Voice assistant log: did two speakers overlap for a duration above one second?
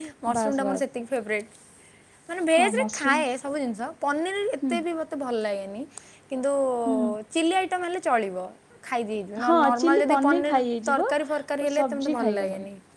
Yes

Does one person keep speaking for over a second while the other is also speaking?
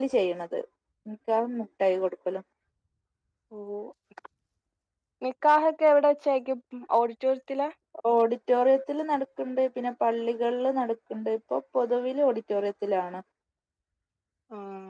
No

